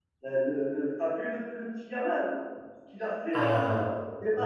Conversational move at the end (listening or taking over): taking over